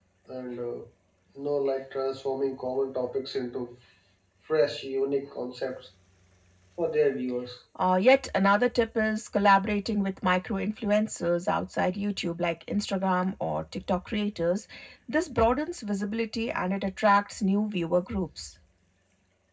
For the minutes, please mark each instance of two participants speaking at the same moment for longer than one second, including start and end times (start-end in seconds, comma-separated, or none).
none